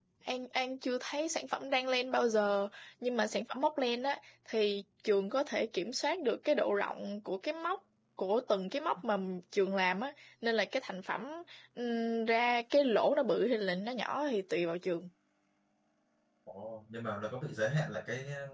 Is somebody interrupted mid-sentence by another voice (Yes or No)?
No